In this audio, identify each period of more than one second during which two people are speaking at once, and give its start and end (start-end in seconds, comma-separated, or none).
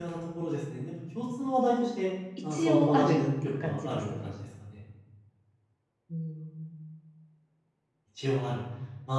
2.5-4.3